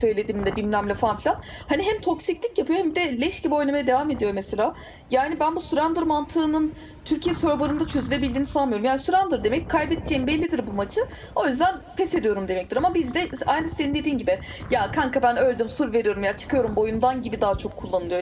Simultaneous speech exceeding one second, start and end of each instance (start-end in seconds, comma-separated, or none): none